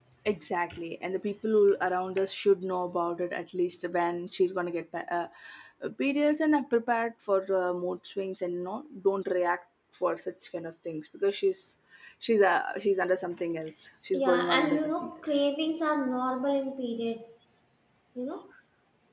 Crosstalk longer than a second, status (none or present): present